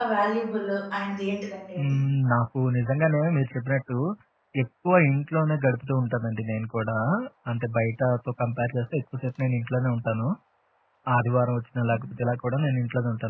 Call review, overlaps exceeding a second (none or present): none